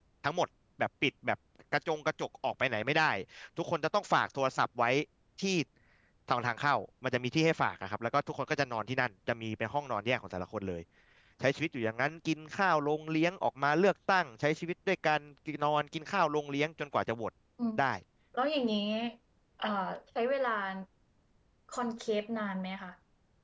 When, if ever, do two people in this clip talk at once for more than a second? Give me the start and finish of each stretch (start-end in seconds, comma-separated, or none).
none